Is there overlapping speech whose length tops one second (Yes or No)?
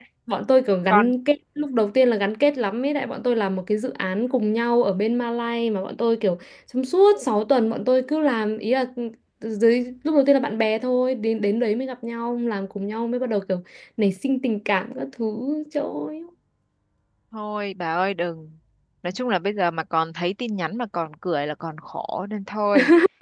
No